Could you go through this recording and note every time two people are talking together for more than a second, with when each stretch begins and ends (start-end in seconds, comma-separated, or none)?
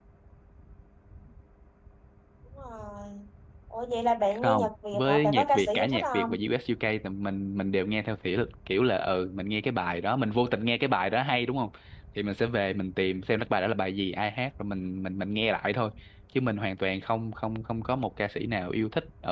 4.4-6.4